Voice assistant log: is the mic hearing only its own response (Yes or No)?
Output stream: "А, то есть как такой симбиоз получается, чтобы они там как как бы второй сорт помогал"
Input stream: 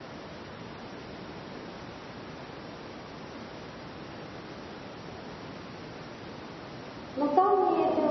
No